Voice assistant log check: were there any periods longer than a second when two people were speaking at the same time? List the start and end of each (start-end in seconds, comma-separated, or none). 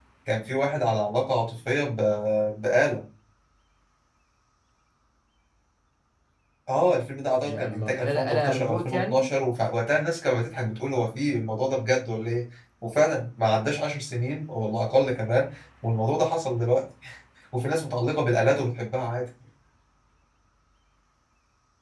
7.4-9.2